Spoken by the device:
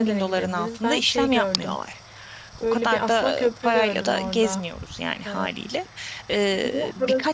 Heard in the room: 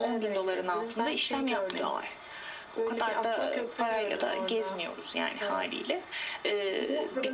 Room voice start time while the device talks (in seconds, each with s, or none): none